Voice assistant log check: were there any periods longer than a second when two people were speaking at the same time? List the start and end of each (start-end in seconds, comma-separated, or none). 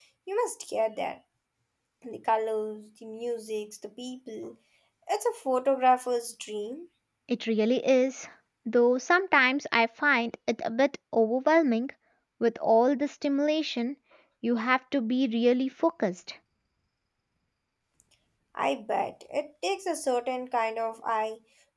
none